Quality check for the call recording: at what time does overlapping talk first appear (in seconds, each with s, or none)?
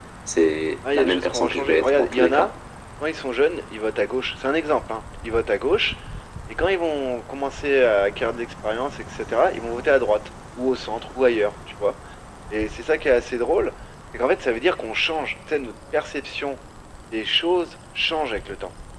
0.9 s